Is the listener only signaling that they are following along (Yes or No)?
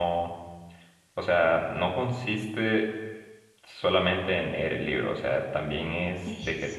Yes